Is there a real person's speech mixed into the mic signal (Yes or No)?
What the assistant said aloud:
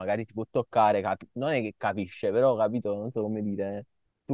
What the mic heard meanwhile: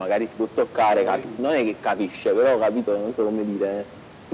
Yes